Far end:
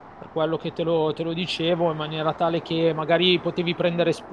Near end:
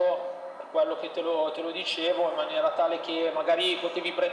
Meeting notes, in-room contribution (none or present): none